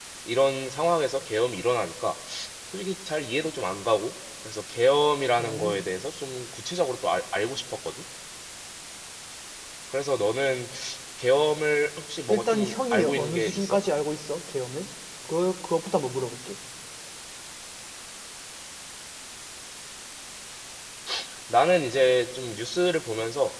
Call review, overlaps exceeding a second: present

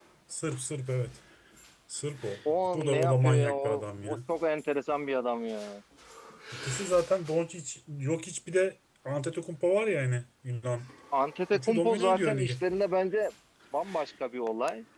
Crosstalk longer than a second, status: present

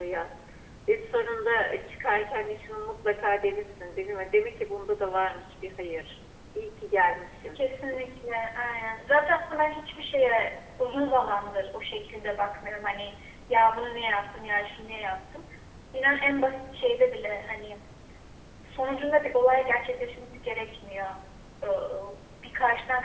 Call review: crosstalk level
none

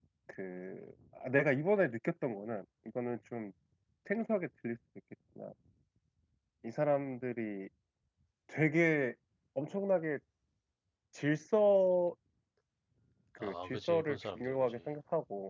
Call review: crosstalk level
present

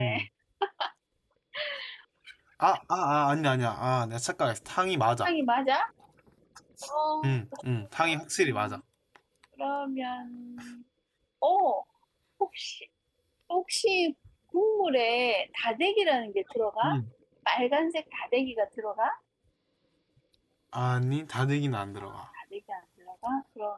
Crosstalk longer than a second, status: none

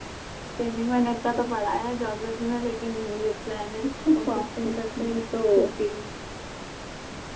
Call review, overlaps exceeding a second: present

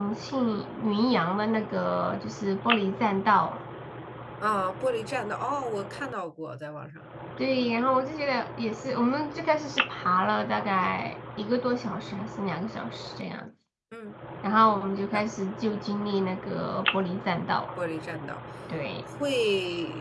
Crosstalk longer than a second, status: none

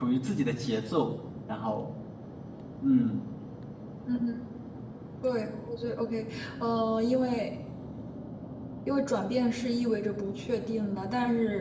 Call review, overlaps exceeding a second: none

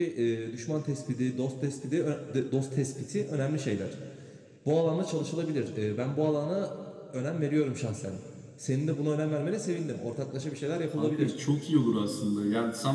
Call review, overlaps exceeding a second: none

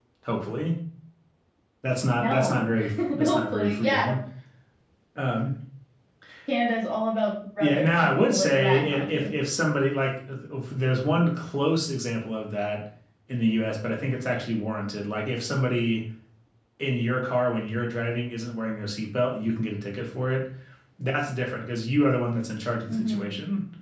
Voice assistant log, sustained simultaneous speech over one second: present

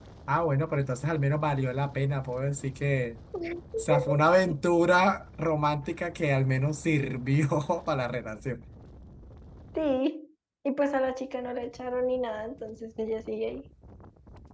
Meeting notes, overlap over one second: none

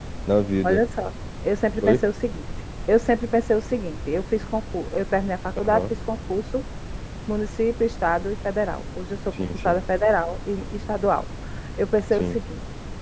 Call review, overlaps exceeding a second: none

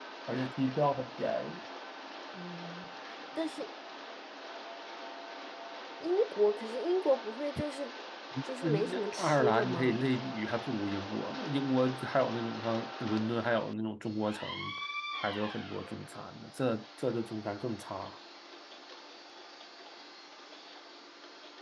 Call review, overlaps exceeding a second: present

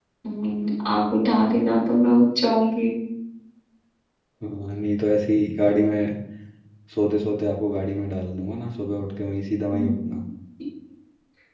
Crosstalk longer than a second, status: none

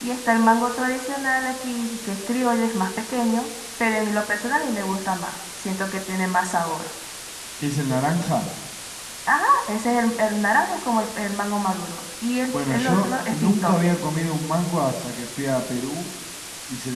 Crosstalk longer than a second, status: present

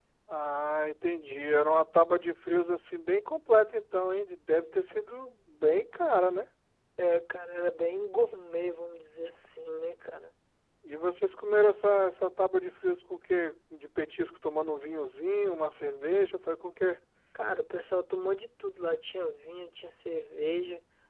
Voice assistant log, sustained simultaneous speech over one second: none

